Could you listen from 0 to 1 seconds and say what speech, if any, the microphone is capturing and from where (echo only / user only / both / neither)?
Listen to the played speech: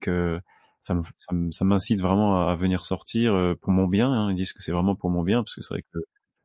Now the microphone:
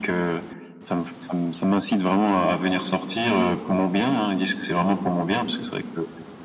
echo only